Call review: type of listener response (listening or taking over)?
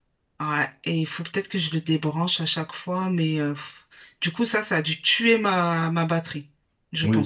taking over